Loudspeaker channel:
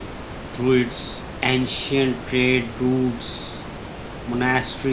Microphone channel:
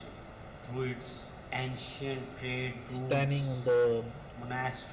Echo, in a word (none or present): present